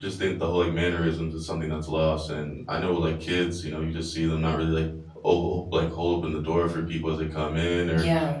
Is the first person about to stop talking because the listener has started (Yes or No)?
No